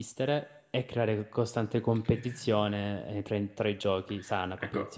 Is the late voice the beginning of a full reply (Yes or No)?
Yes